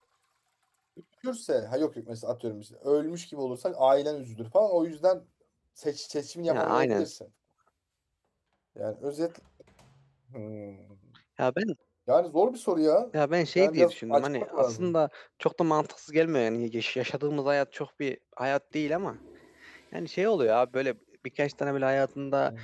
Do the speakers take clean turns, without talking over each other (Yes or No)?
No